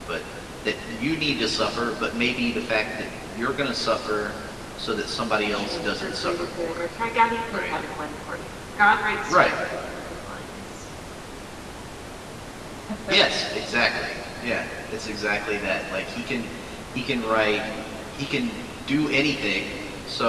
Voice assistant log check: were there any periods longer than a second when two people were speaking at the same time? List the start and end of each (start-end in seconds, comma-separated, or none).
5.5-6.9